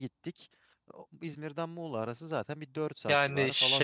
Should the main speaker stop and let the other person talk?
Yes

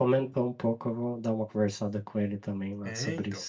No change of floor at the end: No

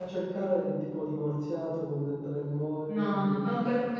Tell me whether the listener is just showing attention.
No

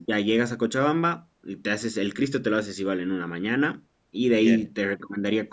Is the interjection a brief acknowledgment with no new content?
Yes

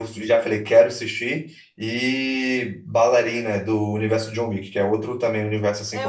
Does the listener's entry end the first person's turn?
Yes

